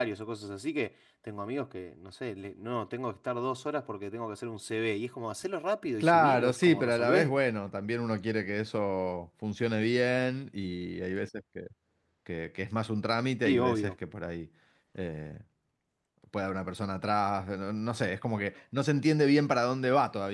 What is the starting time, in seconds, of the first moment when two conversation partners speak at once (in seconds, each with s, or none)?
6.0 s